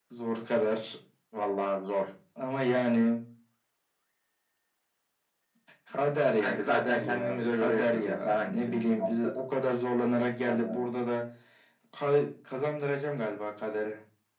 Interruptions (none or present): present